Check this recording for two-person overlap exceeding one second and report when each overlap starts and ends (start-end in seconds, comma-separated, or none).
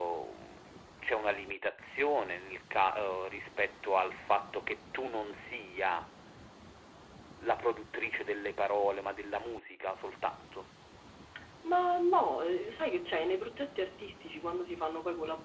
none